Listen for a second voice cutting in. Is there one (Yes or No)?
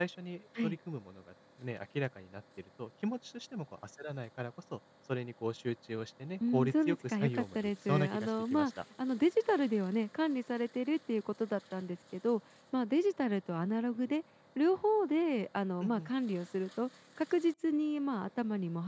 Yes